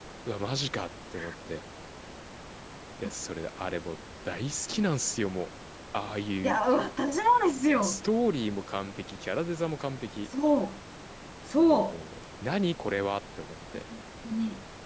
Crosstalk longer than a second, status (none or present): none